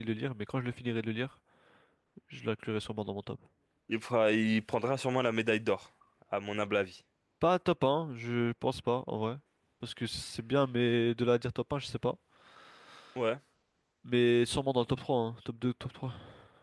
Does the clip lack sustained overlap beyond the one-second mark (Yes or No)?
Yes